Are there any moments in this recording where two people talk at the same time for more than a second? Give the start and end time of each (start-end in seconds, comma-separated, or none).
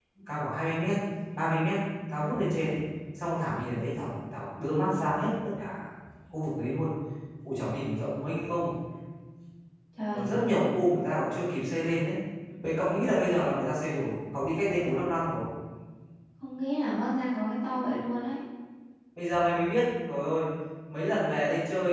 none